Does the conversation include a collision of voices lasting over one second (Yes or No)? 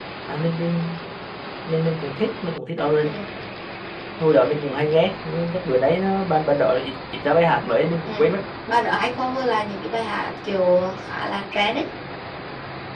No